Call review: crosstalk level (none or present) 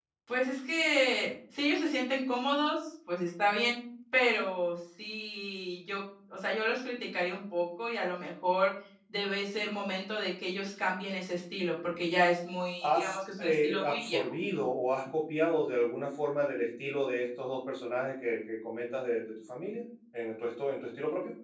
present